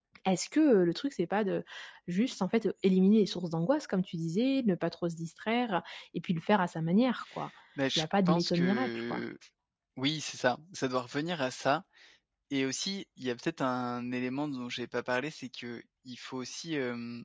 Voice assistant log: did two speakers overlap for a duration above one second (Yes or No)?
Yes